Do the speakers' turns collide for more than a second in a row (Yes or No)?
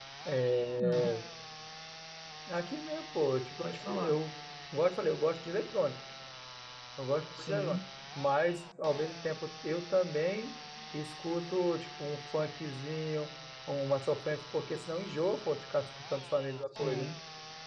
No